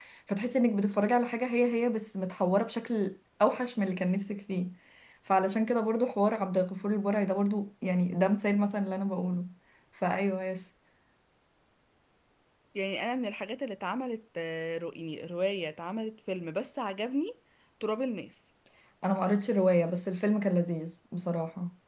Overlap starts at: none

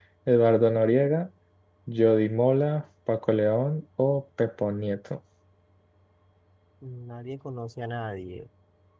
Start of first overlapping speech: none

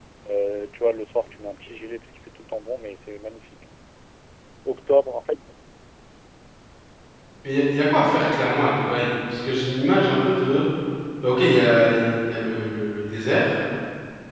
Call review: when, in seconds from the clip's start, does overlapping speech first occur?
none

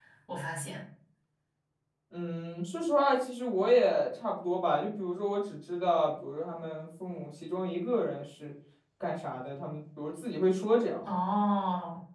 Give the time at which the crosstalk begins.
none

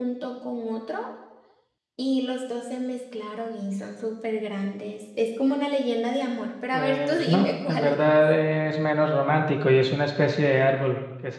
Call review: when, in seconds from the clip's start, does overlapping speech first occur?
6.7 s

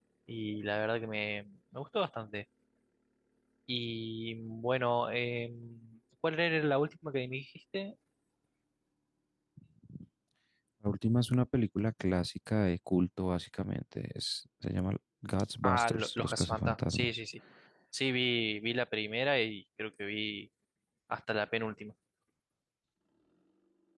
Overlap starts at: 15.6 s

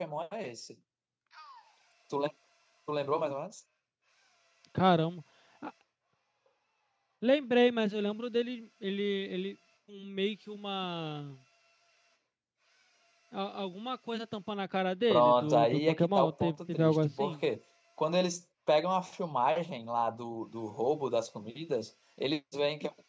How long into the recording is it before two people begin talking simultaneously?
15.1 s

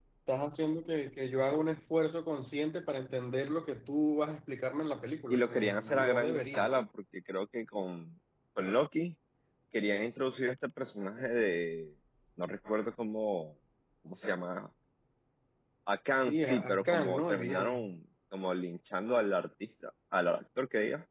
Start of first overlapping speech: 5.3 s

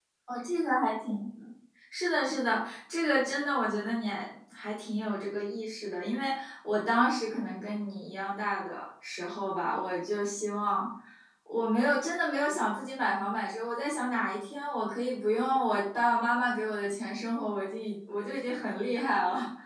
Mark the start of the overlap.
none

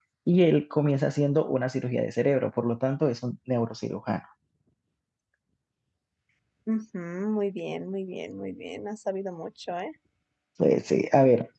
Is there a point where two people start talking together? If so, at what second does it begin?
none

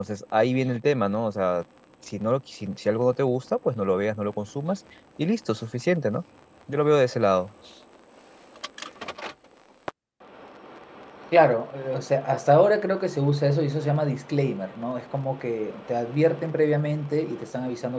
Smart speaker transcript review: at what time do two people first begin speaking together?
none

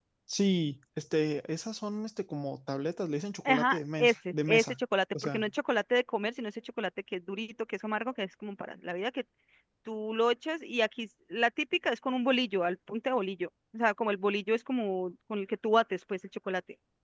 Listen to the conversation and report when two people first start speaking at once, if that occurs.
3.4 s

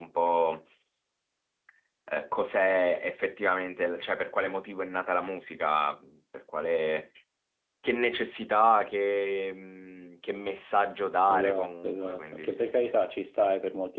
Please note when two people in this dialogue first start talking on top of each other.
11.3 s

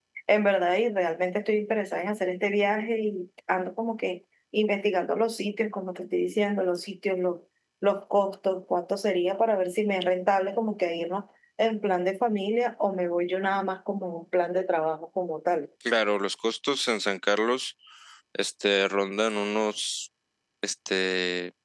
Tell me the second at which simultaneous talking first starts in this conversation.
none

